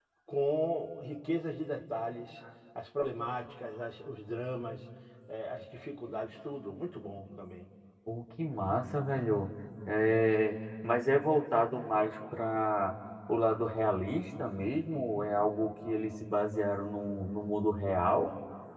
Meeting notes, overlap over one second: none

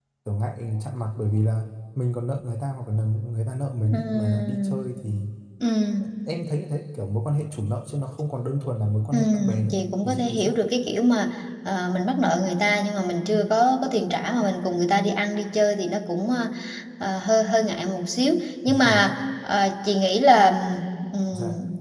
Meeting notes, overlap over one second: present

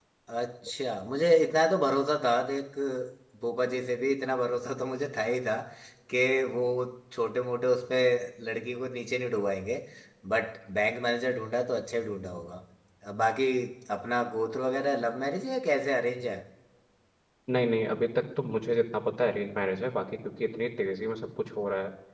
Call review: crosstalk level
none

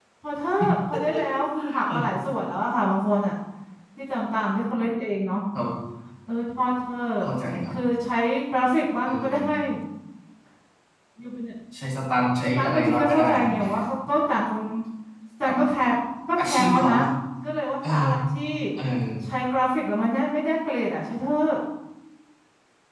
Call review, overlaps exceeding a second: present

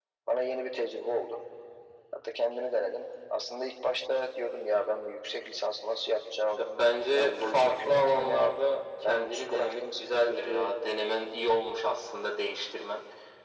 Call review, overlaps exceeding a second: present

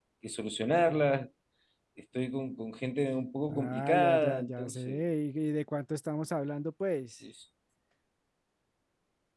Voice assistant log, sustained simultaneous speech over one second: present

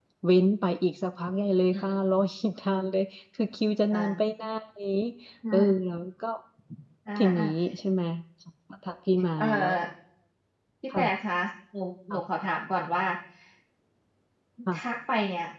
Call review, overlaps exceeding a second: none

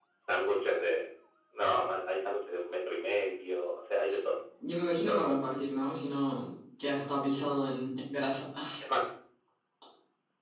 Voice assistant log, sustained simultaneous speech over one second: none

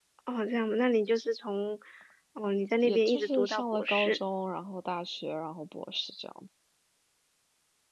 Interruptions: present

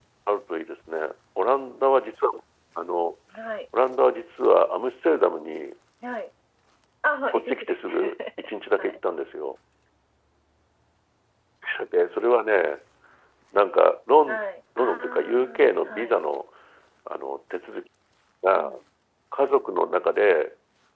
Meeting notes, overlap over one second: present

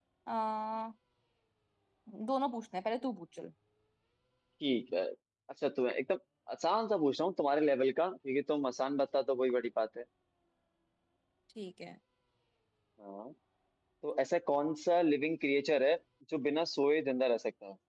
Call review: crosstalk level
none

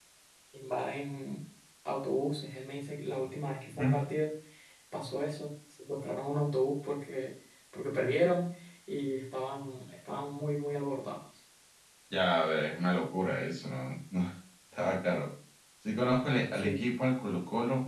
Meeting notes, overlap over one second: none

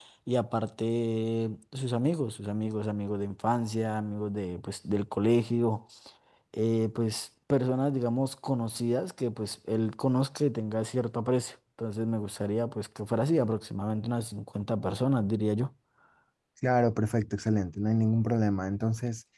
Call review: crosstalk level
none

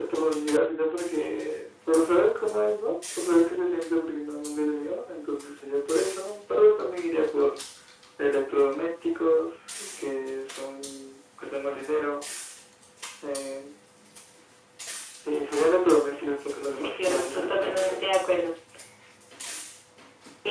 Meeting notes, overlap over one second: present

